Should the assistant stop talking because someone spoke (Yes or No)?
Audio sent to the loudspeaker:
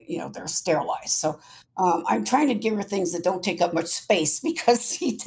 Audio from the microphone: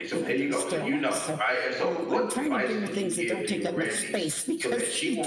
Yes